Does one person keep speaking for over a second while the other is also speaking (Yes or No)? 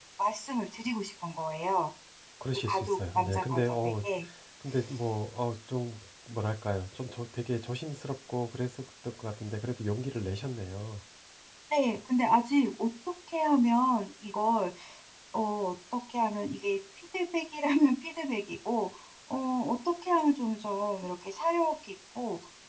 Yes